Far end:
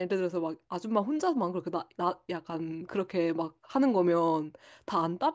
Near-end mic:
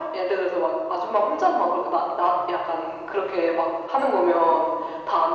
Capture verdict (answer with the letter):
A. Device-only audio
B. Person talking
A